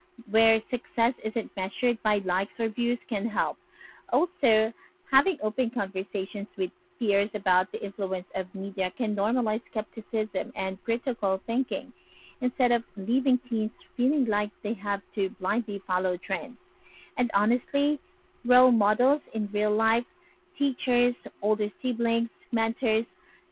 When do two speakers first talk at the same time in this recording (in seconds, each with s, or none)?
none